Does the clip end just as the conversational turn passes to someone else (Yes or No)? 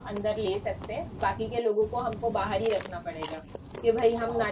No